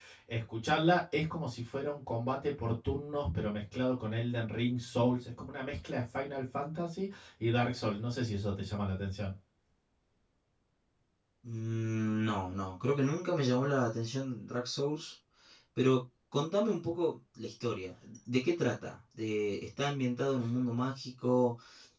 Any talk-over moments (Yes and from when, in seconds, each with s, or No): No